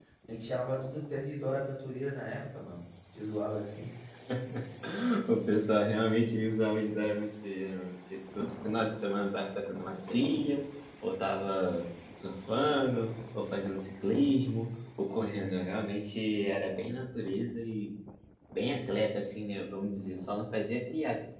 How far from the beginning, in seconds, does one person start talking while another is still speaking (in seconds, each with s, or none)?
none